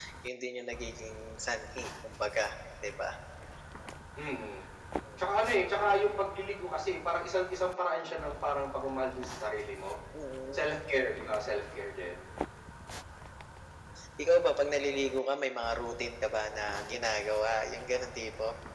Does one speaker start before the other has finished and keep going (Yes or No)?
No